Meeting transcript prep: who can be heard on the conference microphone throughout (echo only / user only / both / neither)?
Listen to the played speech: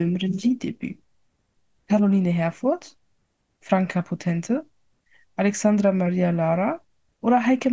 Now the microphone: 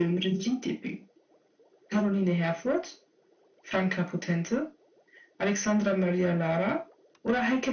echo only